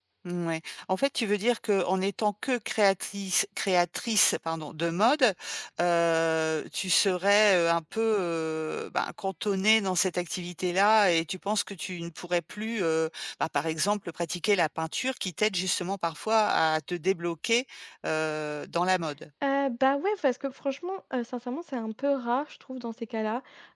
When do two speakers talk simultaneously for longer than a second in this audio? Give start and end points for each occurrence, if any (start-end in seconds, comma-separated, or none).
none